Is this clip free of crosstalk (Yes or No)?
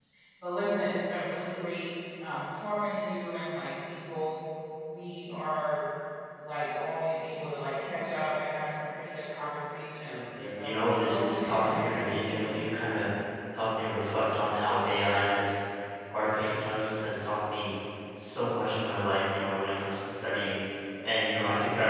No